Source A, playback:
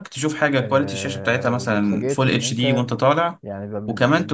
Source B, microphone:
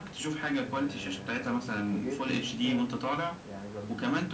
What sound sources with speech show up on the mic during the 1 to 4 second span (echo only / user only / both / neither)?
echo only